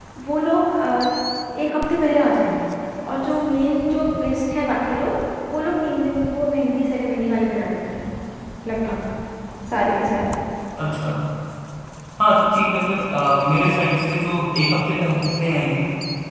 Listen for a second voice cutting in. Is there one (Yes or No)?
No